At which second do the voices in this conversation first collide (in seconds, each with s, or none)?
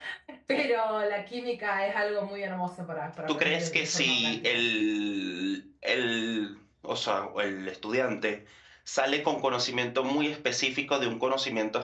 3.3 s